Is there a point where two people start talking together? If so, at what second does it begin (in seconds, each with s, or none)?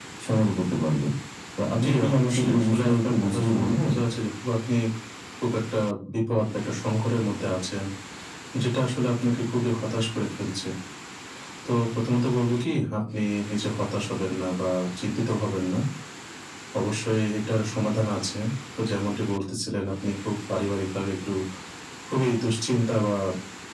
1.8 s